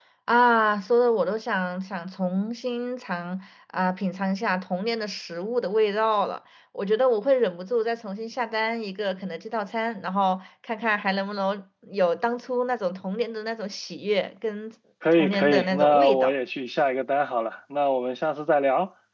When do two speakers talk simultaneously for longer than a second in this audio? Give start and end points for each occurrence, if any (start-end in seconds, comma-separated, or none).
15.1-16.3